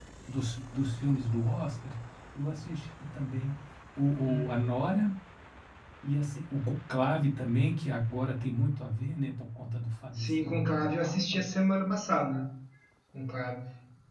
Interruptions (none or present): present